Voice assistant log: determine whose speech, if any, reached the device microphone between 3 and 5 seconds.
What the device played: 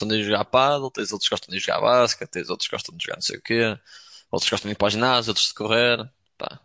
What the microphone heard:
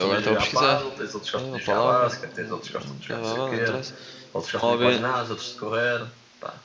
both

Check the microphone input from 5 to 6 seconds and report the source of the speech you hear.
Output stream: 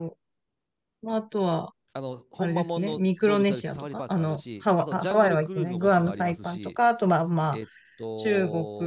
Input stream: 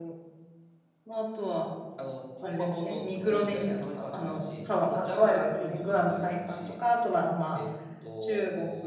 echo only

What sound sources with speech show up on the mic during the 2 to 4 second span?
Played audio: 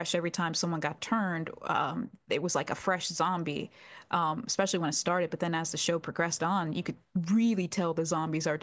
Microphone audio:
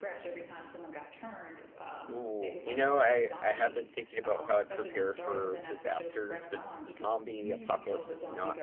both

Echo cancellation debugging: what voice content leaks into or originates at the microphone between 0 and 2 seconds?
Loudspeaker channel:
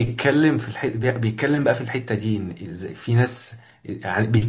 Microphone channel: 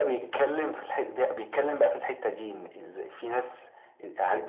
echo only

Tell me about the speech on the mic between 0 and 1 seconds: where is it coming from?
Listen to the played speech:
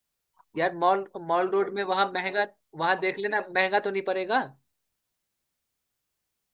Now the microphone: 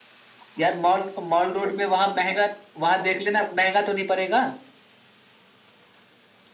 echo only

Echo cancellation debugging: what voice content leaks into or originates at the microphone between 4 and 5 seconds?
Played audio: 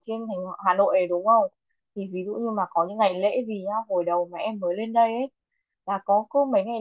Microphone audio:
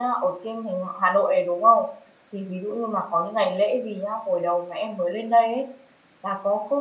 echo only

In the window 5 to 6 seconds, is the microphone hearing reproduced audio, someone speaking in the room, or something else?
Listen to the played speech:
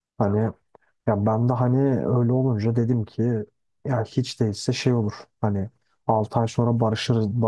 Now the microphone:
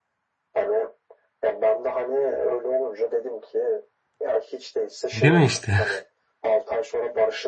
both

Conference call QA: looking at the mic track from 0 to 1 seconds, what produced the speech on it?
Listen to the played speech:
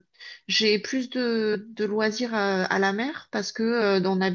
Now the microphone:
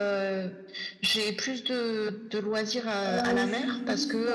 echo only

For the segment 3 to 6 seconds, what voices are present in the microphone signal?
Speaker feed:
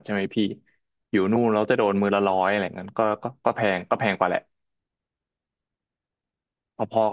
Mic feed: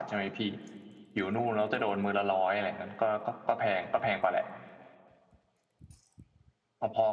echo only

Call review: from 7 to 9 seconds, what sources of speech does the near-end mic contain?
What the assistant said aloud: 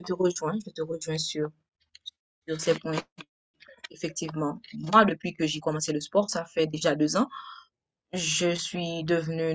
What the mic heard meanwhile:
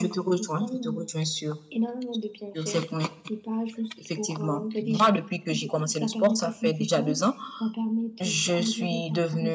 both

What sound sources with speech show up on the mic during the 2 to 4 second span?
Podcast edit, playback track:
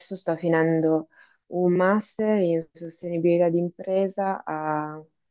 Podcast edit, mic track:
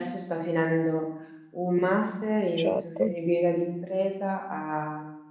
both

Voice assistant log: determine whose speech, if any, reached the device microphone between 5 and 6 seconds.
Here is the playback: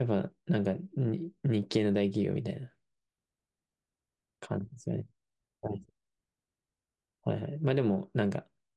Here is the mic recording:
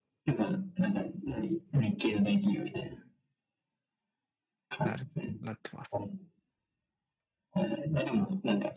both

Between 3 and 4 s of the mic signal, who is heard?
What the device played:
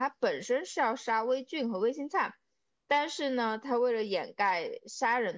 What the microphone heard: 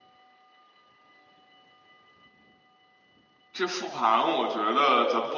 user only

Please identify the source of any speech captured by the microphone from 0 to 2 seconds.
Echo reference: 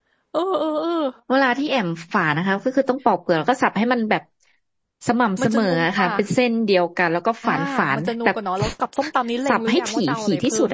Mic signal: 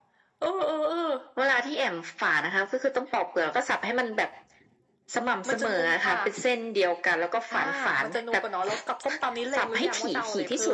echo only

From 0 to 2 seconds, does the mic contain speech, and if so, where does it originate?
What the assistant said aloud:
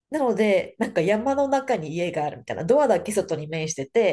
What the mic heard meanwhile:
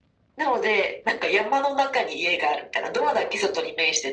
echo only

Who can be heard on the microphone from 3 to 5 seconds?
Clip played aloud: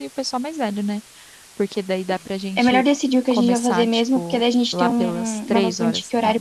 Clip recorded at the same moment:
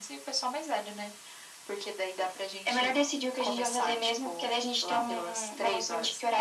echo only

